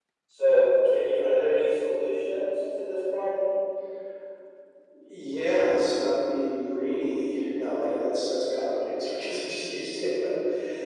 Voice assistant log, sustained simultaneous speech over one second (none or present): none